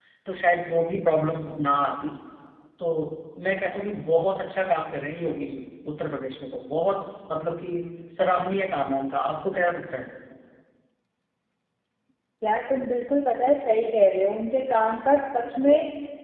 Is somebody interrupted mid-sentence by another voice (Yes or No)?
No